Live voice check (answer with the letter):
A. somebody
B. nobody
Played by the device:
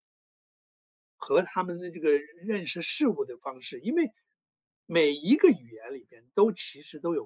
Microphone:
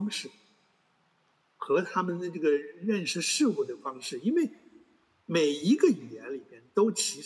B